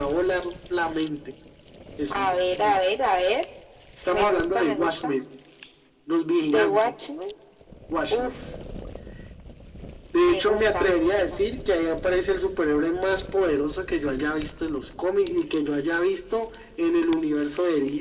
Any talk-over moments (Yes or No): Yes